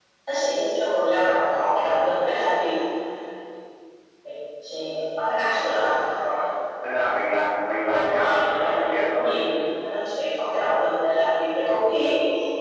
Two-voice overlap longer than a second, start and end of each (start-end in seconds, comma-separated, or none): 7.9-9.3